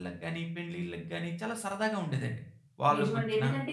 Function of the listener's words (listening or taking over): taking over